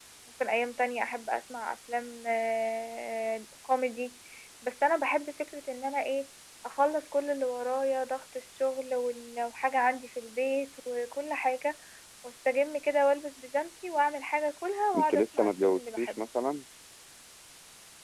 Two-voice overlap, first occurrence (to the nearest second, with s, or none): 15 s